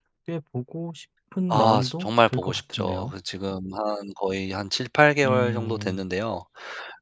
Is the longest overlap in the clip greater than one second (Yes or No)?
Yes